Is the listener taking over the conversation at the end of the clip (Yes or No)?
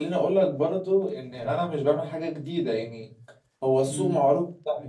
No